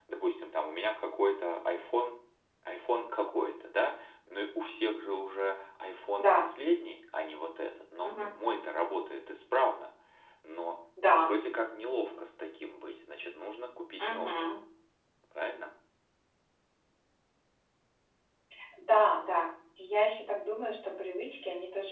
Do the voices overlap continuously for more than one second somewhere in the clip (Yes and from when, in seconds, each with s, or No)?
No